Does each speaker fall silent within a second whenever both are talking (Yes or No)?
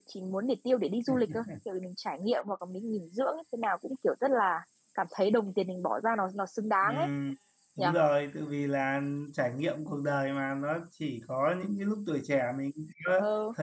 Yes